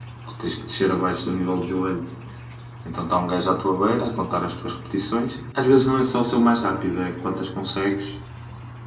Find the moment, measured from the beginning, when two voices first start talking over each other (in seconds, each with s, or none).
none